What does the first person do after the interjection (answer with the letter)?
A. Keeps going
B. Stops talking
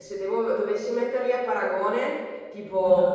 A